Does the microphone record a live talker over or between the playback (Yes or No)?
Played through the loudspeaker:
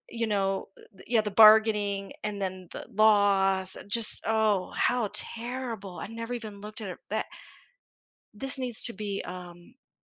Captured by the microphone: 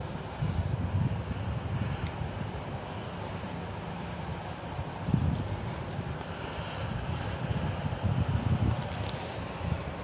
No